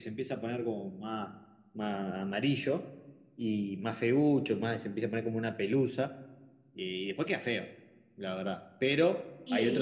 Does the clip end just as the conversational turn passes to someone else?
No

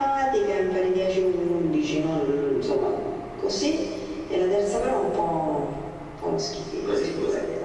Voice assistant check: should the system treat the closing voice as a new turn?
Yes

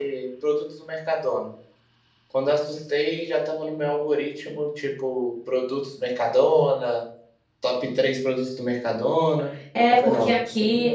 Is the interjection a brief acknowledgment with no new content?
No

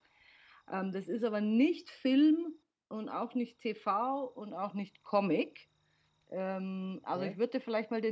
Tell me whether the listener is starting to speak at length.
No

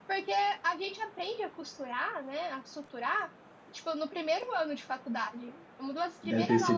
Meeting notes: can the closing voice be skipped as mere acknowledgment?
No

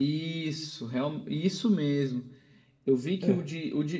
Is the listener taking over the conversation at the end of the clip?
No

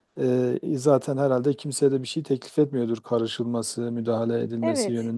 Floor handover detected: Yes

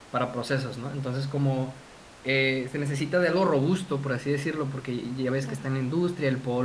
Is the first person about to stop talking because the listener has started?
No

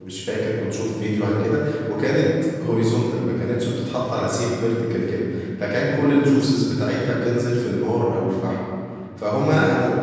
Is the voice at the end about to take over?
Yes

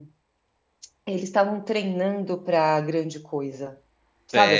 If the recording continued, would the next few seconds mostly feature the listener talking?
Yes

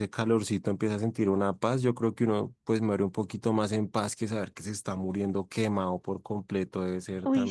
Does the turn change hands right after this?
Yes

